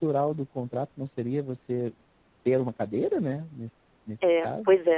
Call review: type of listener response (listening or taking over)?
taking over